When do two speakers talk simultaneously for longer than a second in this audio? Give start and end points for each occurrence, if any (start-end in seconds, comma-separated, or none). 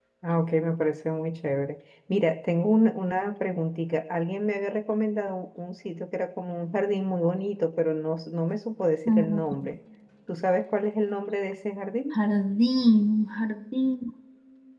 none